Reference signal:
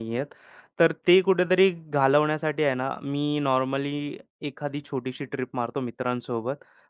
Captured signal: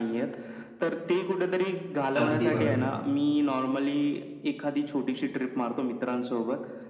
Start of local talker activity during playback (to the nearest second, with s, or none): 2 s